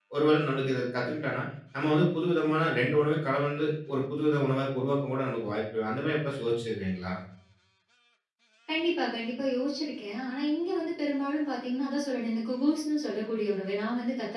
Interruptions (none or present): none